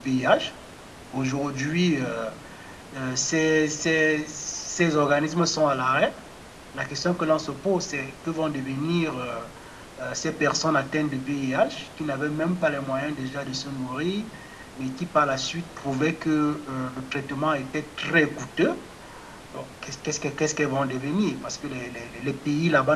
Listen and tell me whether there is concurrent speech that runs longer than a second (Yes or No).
No